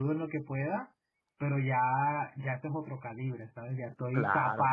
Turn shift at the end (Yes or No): No